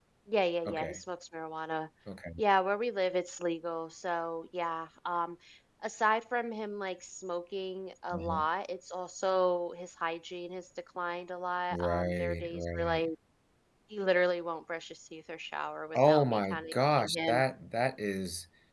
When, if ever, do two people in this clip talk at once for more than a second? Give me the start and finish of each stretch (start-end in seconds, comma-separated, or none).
11.7-13.1, 15.9-17.4